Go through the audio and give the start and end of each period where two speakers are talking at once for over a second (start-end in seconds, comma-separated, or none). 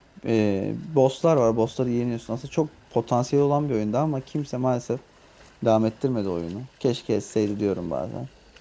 none